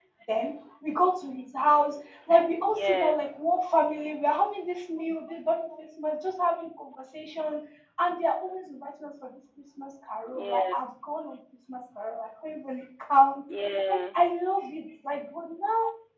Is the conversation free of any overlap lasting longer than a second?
Yes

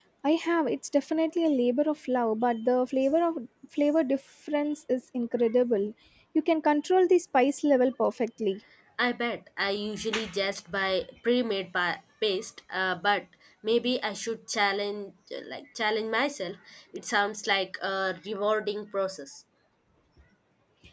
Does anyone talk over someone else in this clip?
No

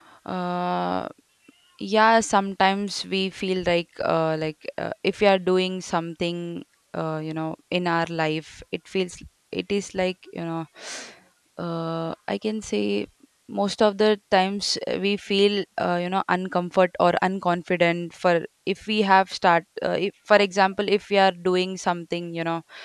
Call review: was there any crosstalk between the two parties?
No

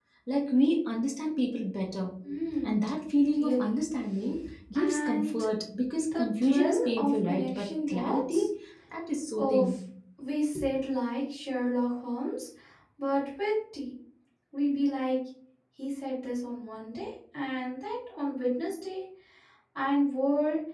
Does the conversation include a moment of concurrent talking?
Yes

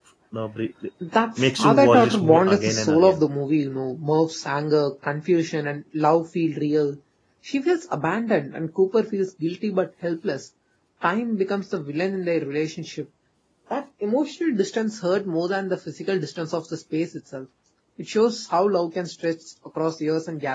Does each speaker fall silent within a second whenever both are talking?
No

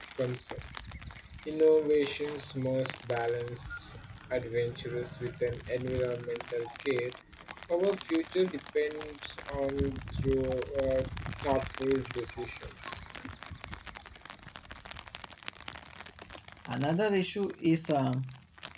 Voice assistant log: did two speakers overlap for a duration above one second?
No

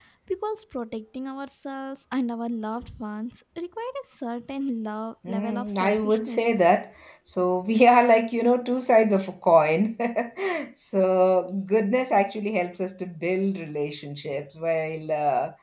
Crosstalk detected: Yes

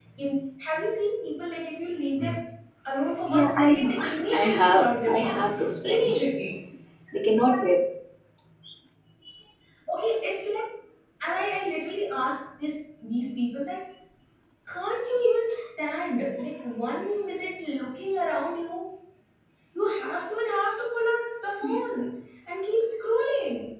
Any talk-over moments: Yes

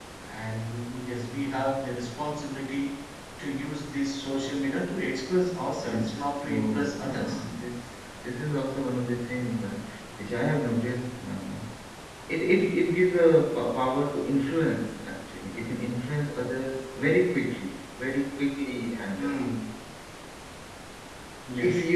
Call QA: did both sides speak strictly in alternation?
No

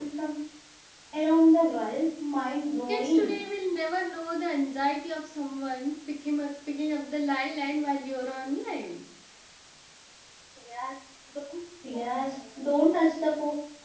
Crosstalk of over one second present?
No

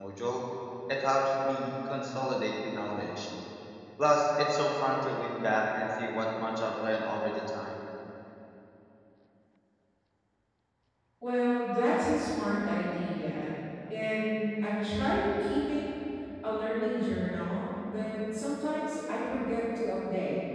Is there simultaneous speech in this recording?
No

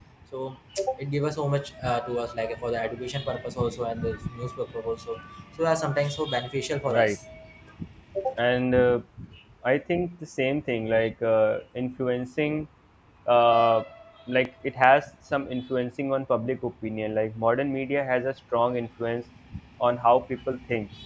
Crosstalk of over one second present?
No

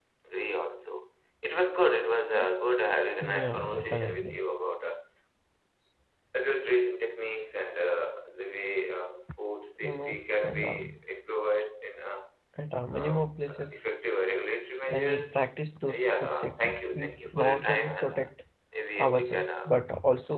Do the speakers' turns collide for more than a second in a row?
Yes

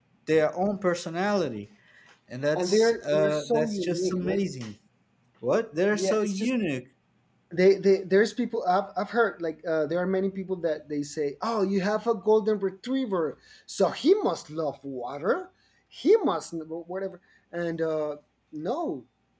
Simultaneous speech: Yes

